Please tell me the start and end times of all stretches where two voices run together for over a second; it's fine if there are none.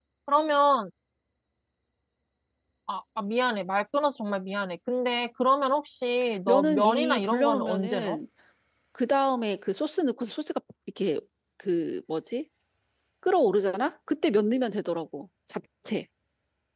6.5-8.2

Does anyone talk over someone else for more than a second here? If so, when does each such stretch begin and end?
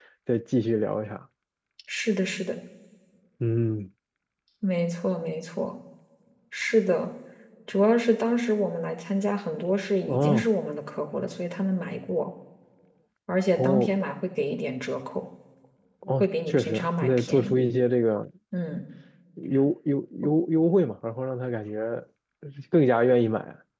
16.2-17.6

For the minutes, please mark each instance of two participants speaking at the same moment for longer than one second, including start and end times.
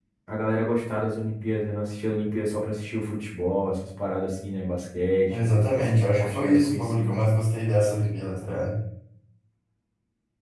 5.3-7.3

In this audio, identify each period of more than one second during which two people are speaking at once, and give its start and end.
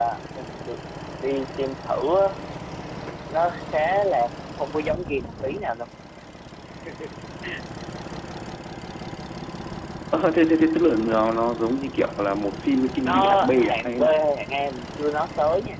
13.0-14.2

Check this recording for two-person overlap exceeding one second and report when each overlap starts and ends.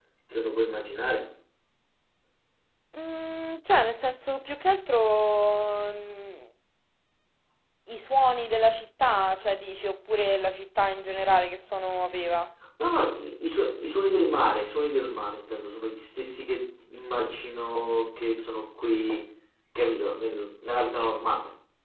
none

